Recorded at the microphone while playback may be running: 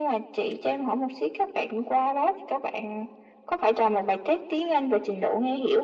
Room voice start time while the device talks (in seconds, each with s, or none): none